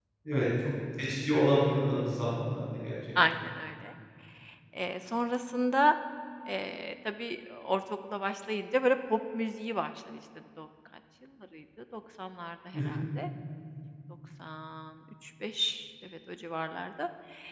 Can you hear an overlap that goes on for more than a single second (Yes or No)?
No